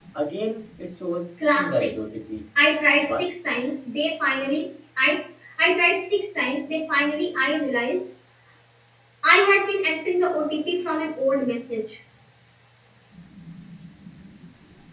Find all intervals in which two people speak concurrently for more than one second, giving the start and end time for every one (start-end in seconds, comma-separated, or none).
none